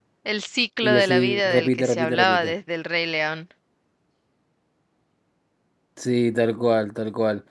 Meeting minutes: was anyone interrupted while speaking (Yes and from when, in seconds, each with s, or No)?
Yes, from 0.8 s